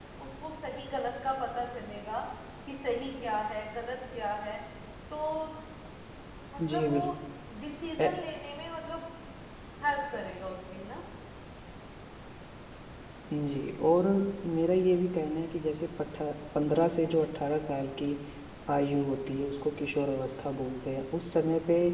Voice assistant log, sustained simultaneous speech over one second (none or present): none